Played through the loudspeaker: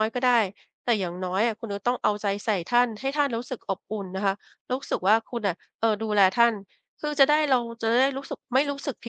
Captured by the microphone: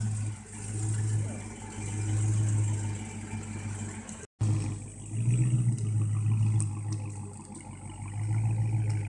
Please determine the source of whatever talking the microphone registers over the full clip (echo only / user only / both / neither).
neither